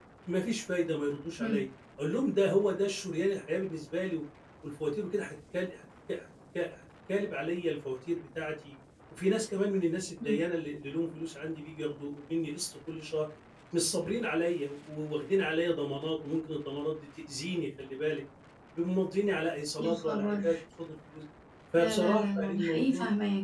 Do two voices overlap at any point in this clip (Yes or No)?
Yes